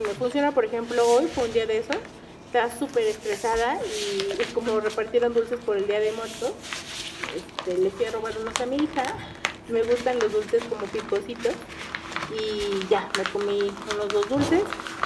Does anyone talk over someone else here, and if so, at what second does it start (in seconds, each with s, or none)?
none